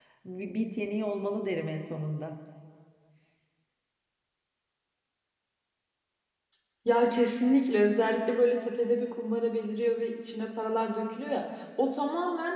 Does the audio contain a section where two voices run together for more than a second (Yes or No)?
No